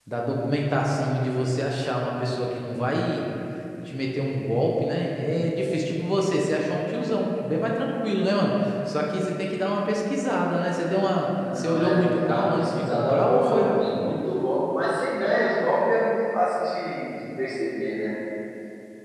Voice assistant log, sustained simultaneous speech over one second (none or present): present